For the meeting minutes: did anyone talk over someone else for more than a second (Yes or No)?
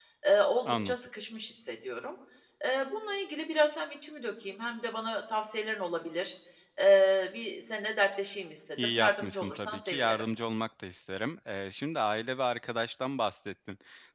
Yes